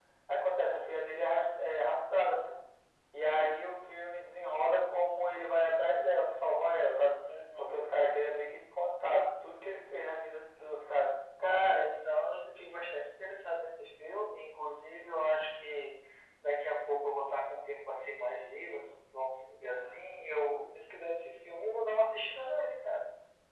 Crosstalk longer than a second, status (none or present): none